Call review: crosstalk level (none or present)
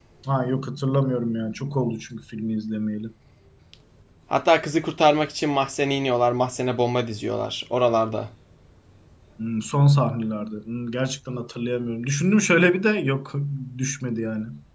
none